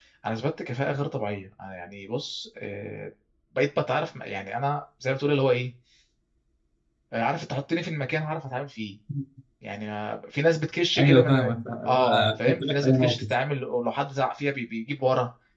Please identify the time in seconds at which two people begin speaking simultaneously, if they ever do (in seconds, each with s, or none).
11.0 s